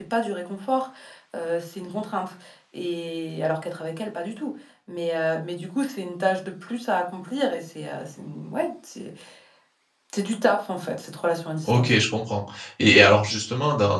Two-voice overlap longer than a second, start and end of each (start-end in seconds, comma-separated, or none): none